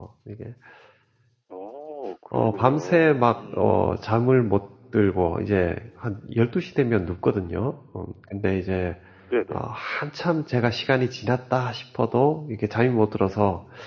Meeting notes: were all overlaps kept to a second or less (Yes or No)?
No